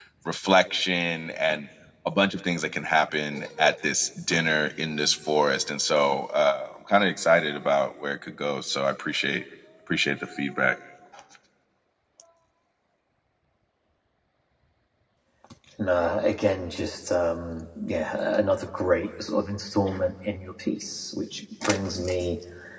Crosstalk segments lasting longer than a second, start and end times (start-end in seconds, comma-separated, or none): none